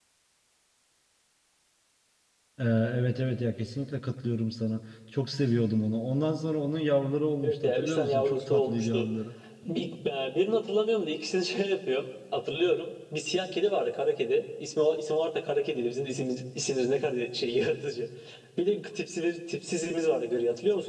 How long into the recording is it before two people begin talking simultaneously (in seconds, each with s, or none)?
7.4 s